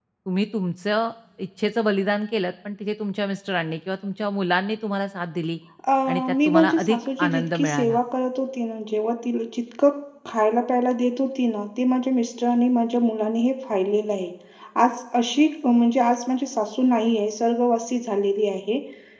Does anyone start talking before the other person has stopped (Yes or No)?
Yes